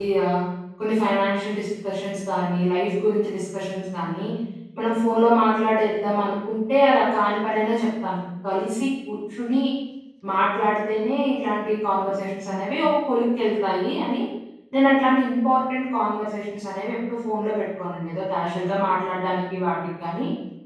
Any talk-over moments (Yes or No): No